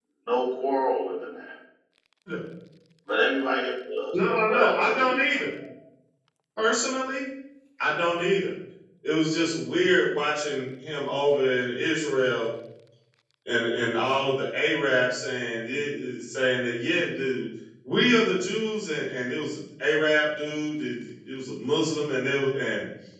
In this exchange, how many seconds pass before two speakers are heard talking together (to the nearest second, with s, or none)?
4 s